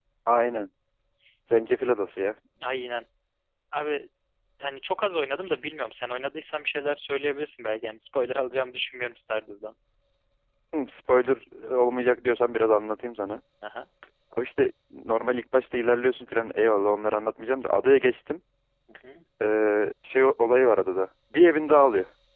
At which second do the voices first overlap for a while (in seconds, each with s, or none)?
none